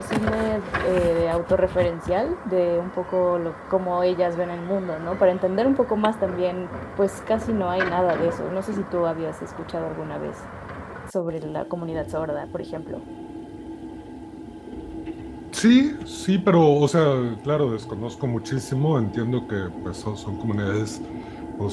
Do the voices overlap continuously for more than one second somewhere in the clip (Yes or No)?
No